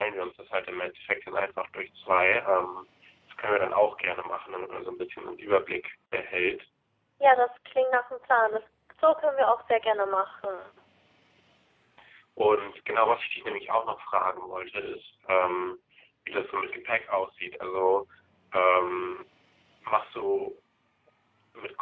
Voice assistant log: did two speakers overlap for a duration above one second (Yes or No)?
No